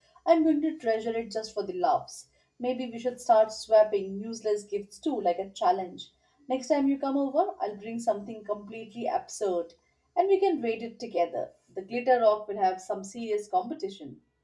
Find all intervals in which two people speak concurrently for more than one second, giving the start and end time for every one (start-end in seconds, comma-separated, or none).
none